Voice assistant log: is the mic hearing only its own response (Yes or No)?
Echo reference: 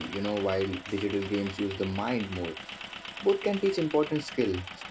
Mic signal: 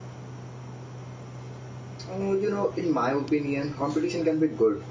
No